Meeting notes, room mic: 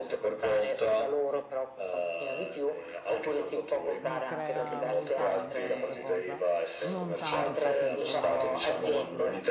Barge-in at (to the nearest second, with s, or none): 4 s